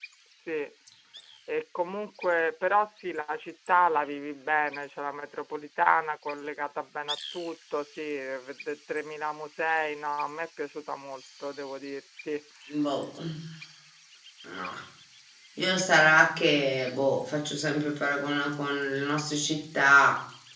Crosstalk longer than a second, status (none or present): none